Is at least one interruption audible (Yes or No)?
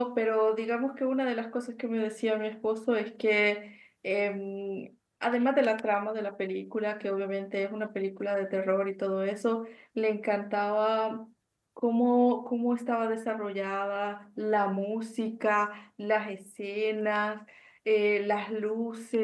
No